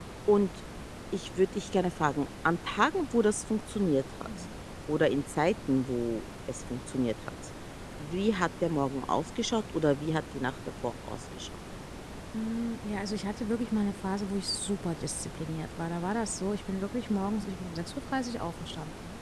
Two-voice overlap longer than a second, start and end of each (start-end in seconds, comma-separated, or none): none